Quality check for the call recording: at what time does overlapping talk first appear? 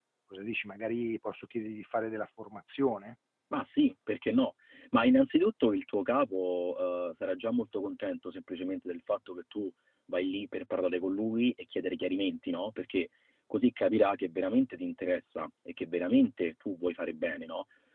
none

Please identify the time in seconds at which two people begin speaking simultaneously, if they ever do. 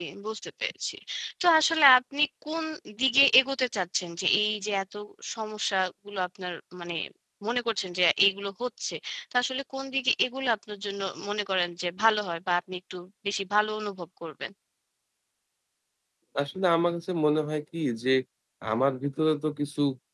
none

